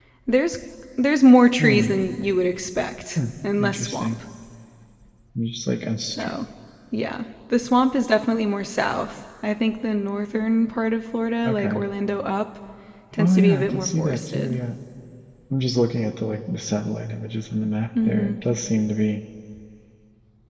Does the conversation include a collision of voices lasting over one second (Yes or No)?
Yes